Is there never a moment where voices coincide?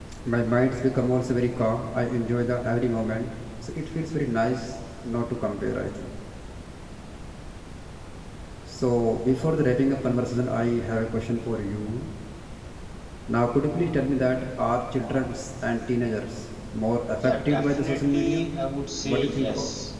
No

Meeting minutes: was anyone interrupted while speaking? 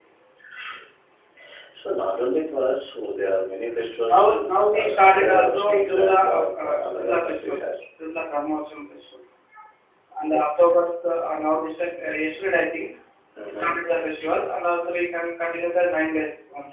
Yes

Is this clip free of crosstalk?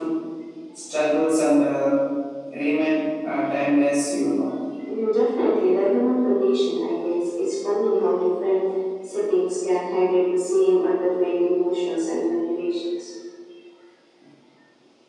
Yes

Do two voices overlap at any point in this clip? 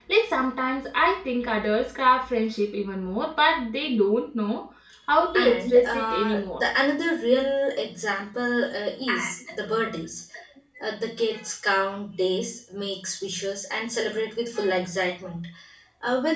Yes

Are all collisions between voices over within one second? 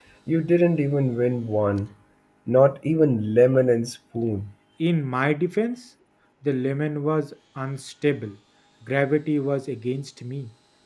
Yes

